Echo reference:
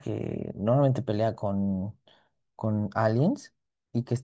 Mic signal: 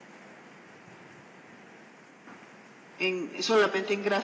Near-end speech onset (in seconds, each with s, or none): 3.0 s